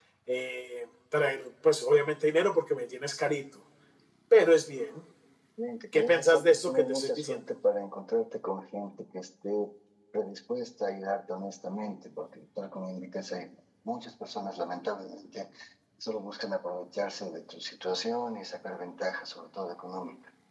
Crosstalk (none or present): present